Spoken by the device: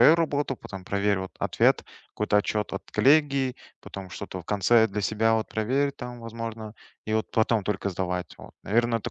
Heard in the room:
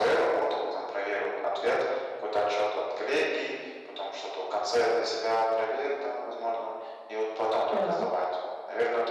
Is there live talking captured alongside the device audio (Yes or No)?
Yes